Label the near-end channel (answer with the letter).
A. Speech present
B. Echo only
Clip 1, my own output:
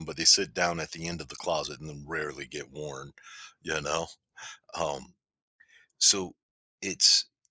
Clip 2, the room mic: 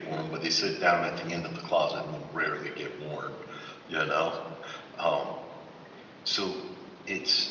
B